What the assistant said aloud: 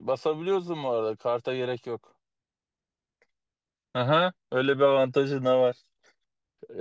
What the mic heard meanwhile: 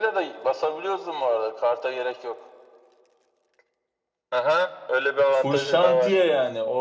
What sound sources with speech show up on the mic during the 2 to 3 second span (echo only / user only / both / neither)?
echo only